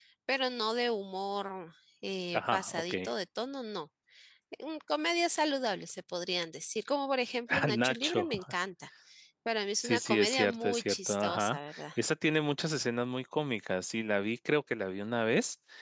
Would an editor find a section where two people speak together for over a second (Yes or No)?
Yes